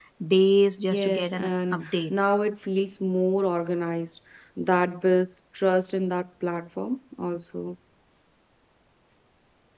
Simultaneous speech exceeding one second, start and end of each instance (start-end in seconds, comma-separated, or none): 0.9-2.2